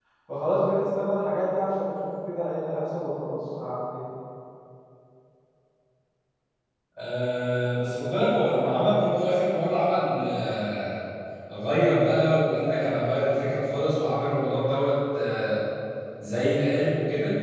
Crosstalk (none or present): none